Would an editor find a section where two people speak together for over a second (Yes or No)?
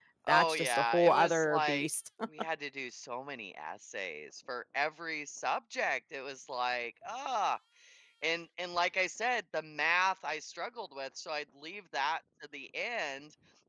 Yes